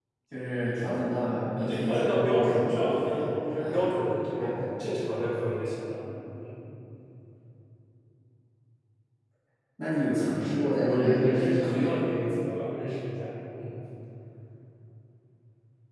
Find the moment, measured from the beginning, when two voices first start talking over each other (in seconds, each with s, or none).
1.6 s